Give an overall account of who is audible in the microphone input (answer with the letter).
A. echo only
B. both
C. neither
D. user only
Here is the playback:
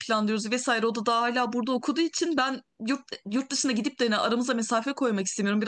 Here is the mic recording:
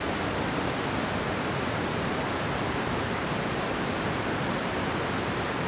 C